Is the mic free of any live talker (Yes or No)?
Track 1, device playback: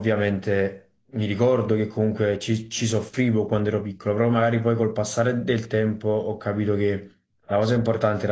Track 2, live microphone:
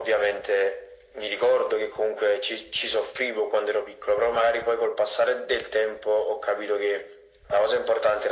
Yes